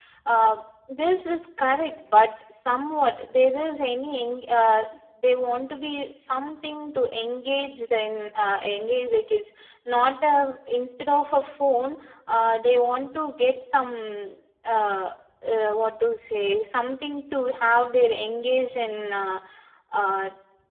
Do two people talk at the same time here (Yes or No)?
No